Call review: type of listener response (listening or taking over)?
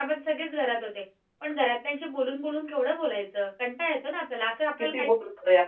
taking over